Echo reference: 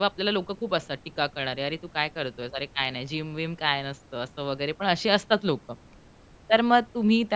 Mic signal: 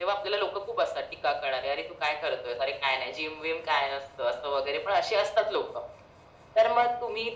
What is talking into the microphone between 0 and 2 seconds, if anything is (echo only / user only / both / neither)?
echo only